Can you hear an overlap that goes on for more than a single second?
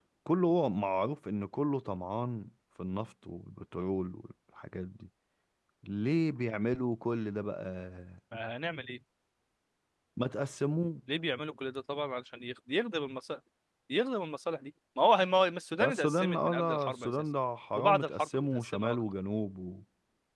Yes, from 15.9 s

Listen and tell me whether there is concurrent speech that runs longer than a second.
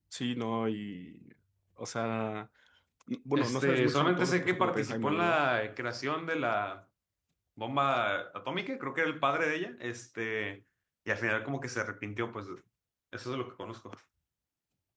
Yes, from 3.4 s

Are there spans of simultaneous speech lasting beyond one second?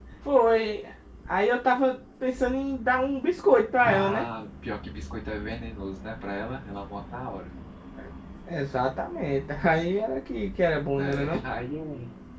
No

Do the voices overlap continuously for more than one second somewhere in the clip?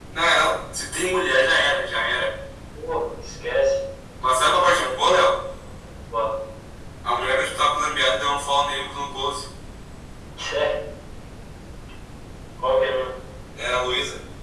No

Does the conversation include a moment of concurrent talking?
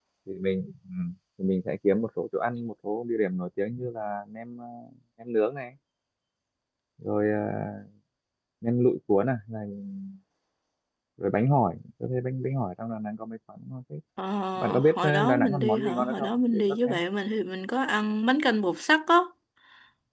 Yes, from 14.8 s

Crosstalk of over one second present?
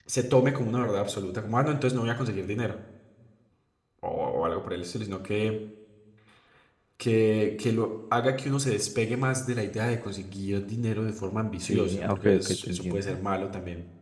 Yes, from 11.6 s

